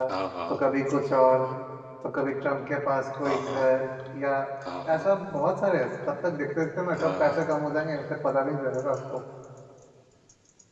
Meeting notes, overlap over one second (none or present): none